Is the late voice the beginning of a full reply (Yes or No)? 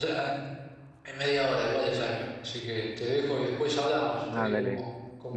Yes